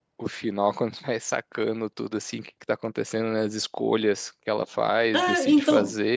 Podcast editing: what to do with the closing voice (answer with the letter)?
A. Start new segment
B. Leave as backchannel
A